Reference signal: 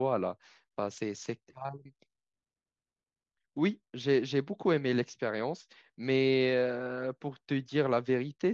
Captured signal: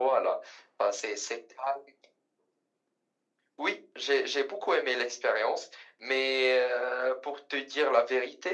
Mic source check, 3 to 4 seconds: echo only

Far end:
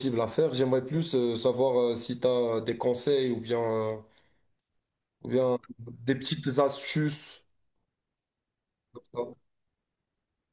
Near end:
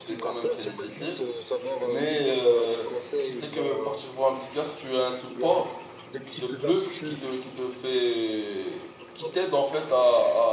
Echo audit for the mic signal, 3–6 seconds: both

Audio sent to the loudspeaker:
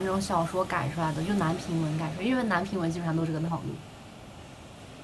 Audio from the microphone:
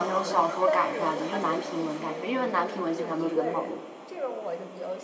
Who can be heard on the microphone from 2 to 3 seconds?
both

